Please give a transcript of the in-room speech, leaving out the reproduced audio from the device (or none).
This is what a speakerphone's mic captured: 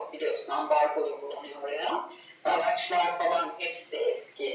none